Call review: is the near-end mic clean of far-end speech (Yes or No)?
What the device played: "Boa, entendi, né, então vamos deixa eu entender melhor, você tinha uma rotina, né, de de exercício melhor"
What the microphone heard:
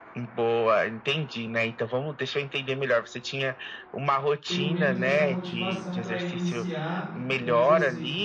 No